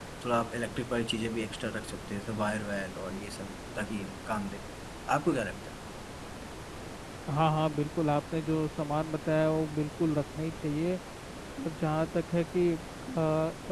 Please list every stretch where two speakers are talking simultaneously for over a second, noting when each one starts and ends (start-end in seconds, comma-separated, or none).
none